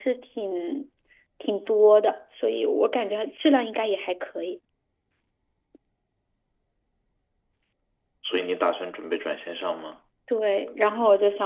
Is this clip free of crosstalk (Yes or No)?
Yes